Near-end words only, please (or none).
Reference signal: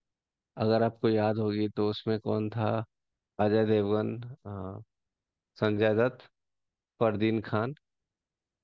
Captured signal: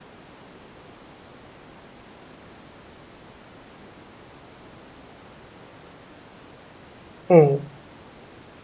हम्म